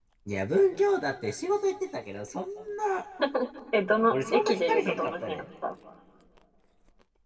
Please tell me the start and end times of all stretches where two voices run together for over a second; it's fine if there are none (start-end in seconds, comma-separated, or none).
4.1-5.4